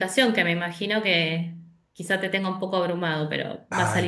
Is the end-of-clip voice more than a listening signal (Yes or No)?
Yes